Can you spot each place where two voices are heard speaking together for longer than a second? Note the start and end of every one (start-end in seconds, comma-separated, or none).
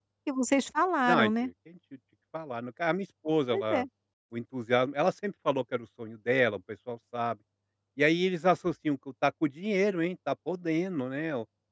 none